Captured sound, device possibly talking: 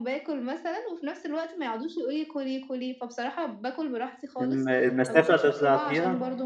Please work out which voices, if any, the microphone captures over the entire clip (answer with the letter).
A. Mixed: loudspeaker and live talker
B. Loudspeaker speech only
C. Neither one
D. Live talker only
A